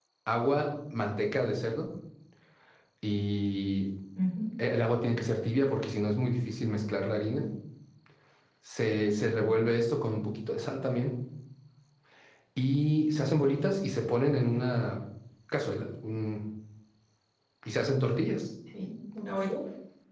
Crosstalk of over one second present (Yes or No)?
No